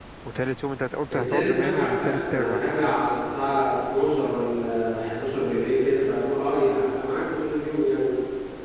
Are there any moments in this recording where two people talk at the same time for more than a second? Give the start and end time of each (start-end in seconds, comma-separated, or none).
1.1-3.0